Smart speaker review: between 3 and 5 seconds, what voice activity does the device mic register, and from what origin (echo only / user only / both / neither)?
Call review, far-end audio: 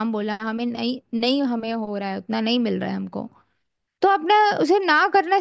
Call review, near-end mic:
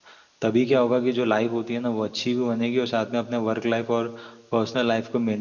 user only